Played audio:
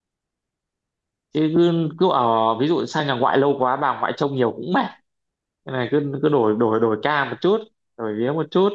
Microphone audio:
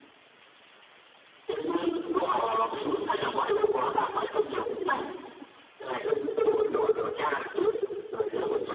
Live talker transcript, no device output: none

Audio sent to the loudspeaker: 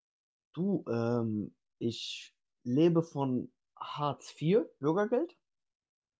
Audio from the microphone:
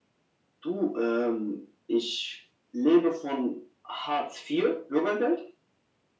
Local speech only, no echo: none

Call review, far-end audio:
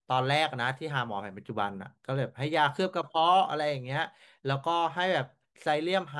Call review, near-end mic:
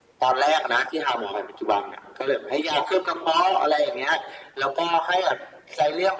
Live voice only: none

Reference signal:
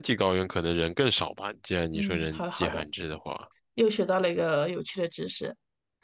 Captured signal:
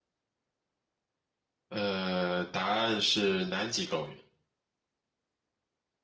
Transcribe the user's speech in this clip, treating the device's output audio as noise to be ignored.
呃，答案是南极高原，

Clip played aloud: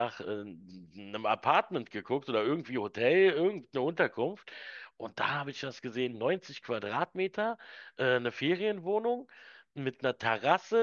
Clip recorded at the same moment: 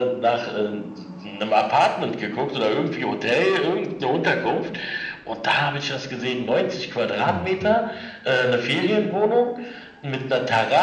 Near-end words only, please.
Okay.

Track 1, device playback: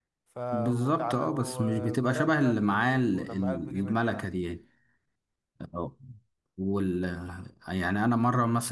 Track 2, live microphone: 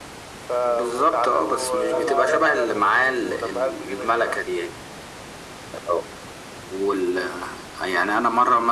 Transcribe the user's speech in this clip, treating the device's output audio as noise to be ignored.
ان شاء الله ارجع اتدرب سباحة تاني

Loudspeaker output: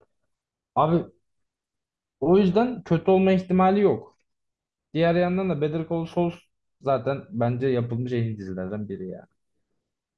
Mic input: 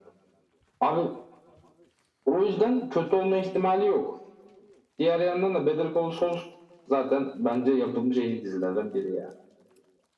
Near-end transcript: none

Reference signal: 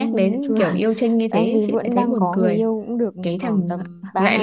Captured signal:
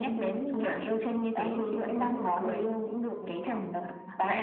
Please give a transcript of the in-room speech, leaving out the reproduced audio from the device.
none

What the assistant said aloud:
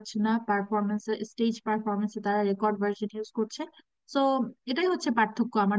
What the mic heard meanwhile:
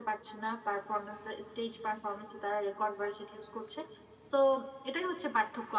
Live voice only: none

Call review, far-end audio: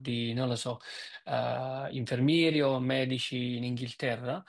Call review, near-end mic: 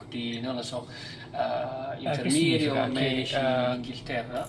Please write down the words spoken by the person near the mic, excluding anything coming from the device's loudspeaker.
Eh, che significa? Che eh,

